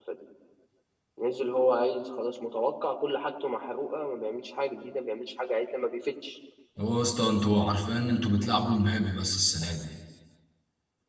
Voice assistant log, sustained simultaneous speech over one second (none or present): none